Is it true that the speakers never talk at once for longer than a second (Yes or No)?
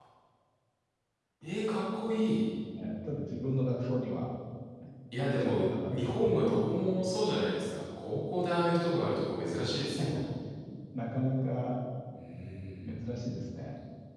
No